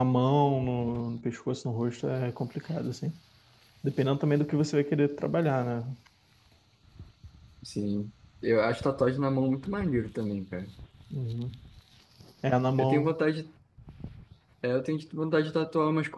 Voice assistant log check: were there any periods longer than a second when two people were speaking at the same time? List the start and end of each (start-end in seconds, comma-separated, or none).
none